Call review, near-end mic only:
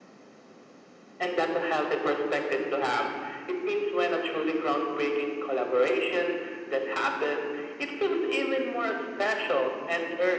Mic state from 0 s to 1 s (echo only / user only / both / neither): neither